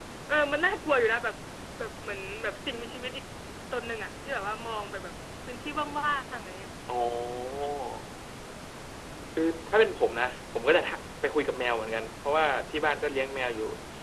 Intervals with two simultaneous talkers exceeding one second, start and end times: none

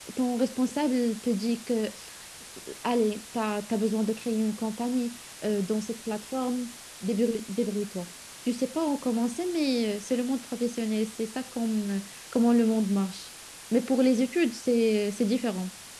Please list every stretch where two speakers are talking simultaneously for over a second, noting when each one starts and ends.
none

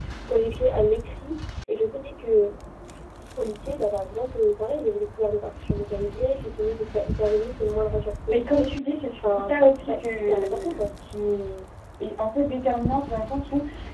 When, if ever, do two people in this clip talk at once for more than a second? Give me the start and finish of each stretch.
9.2-10.9

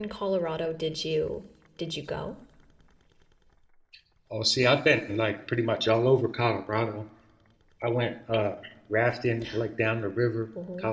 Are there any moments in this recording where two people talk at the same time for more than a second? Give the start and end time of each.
none

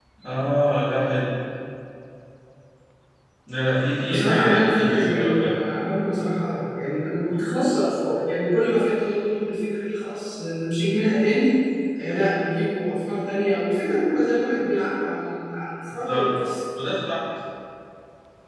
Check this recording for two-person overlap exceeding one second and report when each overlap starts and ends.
4.1-5.5

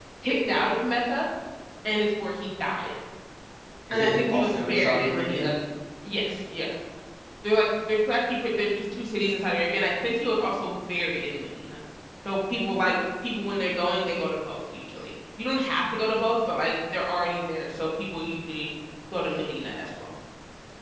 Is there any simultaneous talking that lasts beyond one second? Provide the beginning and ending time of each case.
3.9-5.5

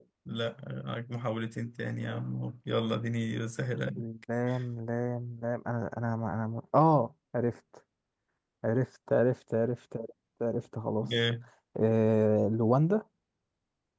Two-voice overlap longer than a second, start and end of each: none

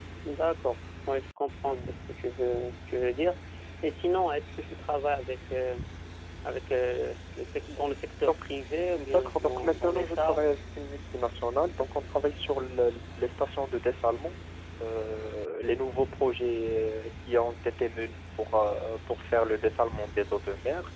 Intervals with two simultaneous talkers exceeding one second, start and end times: 8.9-10.4

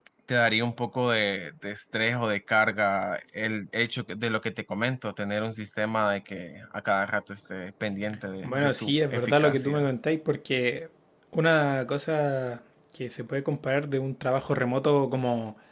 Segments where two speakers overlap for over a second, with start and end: 8.4-9.9

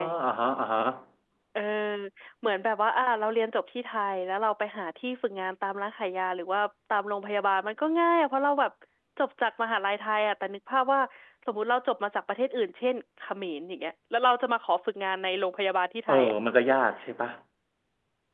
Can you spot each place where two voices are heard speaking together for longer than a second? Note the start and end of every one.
none

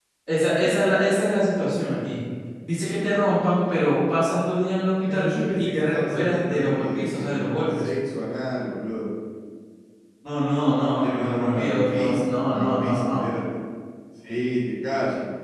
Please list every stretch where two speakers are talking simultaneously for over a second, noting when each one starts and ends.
5.1-7.9, 10.7-13.3

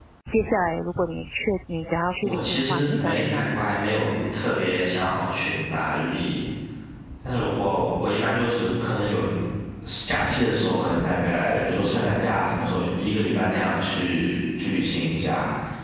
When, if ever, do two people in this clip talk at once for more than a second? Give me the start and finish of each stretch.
2.2-3.6

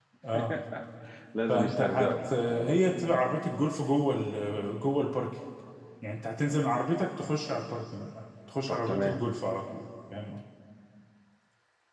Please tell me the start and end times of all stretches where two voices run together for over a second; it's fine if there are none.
1.5-3.2

